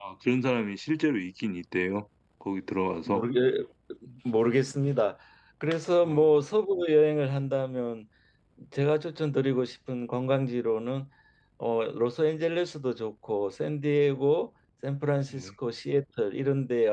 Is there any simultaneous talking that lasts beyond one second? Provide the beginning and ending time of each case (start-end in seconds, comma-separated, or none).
none